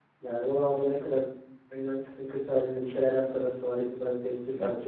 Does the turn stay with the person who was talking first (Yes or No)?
No